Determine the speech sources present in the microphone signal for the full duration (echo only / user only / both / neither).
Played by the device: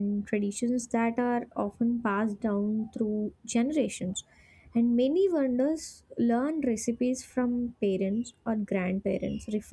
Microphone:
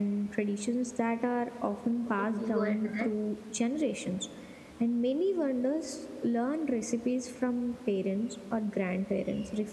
both